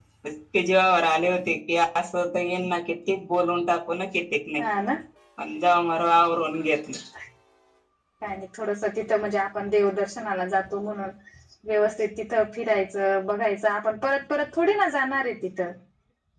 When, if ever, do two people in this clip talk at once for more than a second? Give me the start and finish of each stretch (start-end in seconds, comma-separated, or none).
none